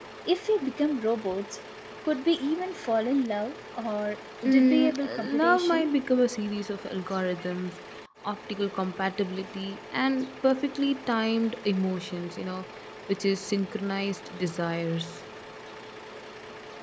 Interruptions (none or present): present